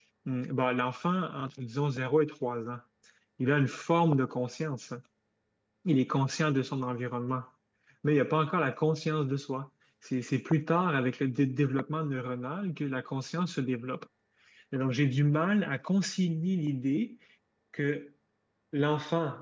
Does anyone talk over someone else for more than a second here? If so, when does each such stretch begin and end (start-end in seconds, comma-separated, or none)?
none